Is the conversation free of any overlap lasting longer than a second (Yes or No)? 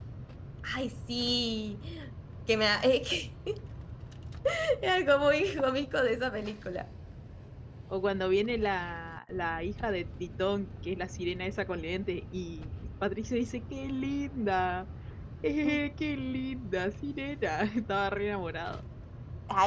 Yes